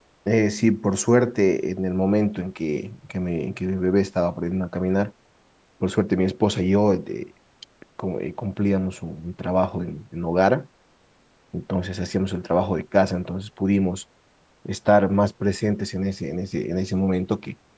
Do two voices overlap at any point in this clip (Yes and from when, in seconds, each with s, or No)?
No